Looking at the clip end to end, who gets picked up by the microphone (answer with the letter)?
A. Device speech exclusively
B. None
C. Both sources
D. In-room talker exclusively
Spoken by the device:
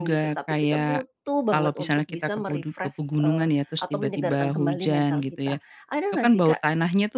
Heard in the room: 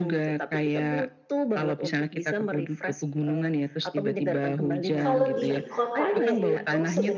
C